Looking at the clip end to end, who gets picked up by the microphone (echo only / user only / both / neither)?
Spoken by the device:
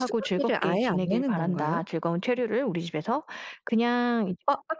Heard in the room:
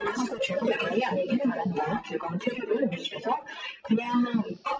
echo only